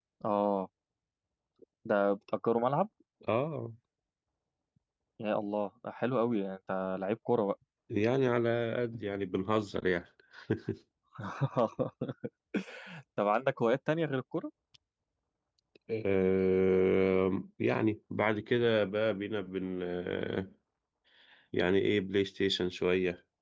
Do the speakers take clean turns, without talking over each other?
Yes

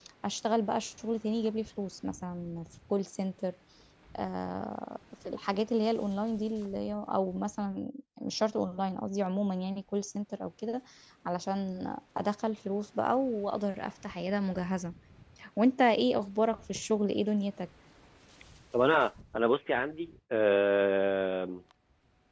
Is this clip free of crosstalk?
Yes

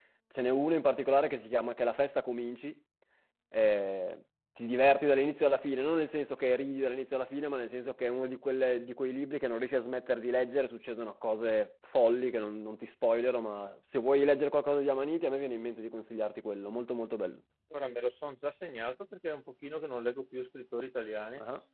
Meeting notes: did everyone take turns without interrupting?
Yes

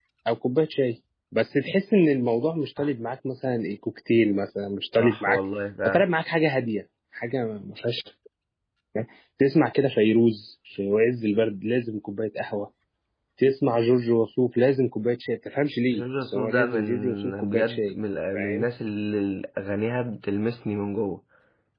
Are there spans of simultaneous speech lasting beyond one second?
Yes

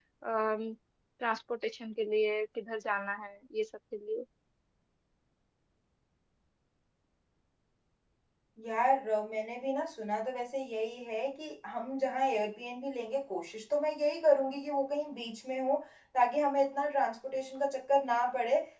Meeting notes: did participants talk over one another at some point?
No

